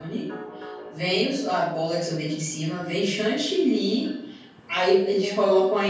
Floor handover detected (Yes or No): No